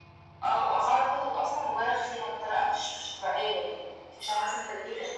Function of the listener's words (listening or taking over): listening